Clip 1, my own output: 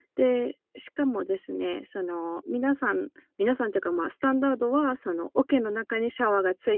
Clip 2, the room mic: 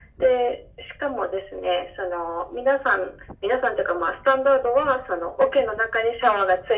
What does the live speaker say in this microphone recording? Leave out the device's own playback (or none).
none